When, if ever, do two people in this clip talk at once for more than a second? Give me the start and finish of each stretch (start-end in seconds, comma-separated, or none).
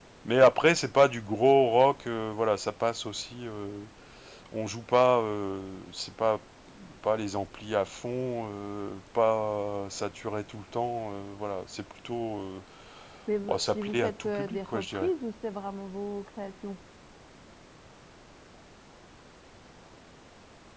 13.4-15.1